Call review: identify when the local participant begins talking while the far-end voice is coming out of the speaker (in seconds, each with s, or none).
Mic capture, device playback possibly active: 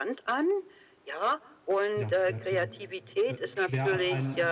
1.9 s